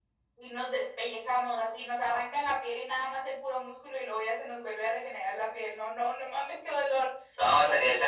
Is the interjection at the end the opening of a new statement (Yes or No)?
Yes